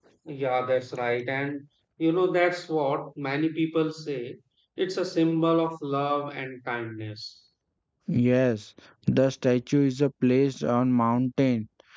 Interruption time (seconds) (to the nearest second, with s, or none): none